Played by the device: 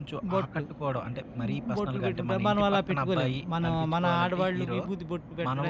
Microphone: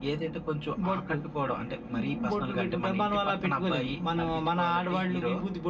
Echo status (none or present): present